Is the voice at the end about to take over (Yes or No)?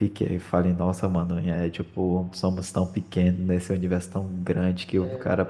No